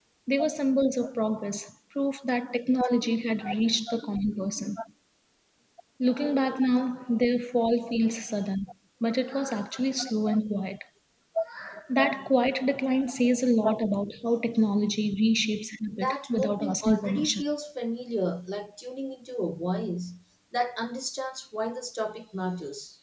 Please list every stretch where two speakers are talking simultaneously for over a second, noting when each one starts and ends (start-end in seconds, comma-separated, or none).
16.0-17.4